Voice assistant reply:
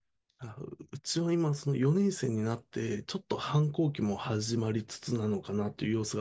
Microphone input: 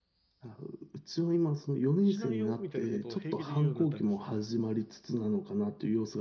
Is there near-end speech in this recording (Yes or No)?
Yes